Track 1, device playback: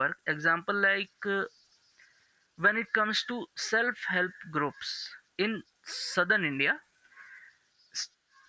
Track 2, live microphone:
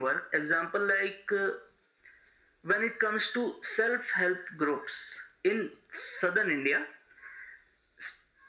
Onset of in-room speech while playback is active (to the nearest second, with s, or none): none